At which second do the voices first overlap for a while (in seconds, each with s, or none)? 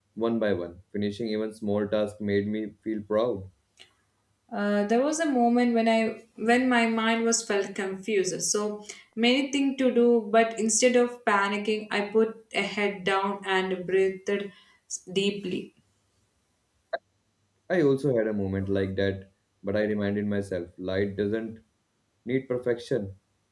none